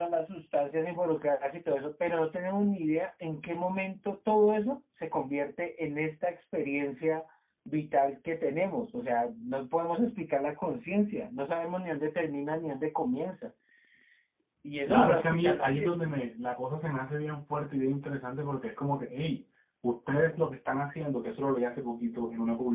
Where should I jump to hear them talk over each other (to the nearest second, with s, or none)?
15 s